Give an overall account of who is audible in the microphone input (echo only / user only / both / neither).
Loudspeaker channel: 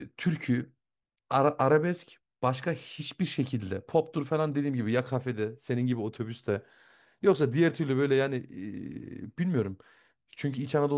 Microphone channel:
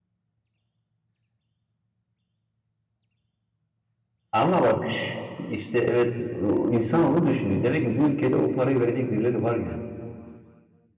user only